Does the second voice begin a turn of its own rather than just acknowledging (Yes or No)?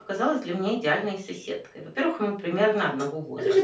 Yes